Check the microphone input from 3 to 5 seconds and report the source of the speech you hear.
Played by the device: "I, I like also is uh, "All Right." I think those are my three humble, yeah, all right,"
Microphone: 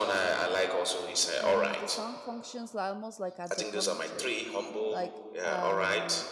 both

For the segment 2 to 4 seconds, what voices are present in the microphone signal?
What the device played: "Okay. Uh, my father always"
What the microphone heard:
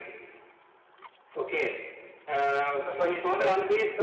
both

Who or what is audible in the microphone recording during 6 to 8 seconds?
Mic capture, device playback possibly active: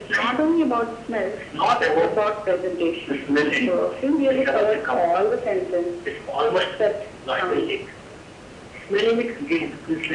echo only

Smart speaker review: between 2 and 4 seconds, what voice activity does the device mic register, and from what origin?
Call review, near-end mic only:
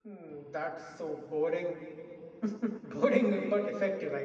echo only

